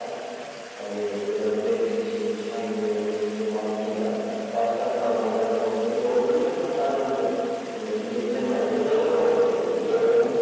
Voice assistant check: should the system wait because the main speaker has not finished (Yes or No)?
Yes